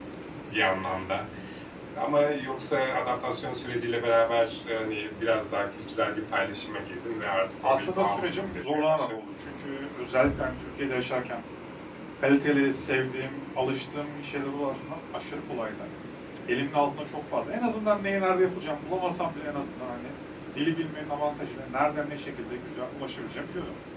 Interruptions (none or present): present